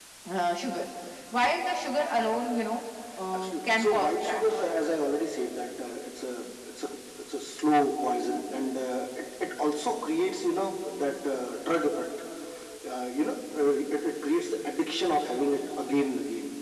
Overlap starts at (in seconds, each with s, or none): 3.3 s